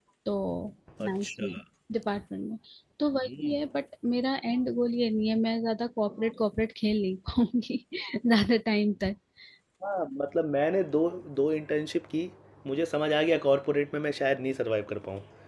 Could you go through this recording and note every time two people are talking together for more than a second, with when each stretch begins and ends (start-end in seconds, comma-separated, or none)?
none